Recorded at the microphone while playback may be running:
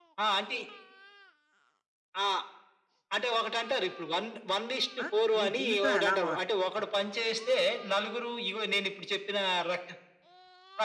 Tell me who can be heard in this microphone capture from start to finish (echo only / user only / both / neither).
both